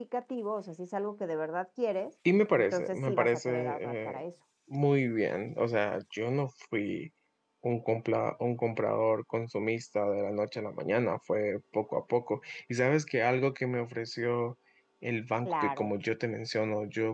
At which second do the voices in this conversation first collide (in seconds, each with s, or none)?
2.6 s